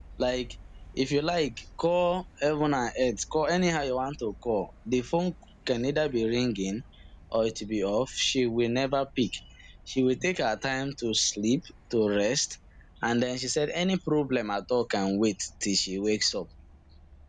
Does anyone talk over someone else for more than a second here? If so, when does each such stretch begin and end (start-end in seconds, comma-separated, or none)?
none